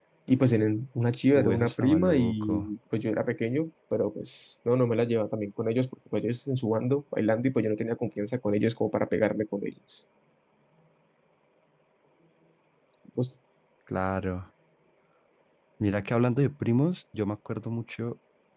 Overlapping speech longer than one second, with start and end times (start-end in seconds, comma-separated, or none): 1.3-2.7